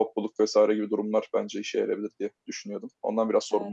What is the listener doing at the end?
taking over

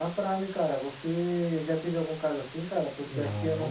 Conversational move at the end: listening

